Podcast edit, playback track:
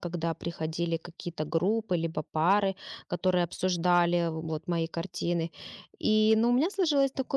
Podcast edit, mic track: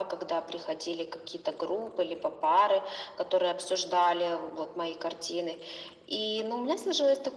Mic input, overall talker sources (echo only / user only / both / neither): echo only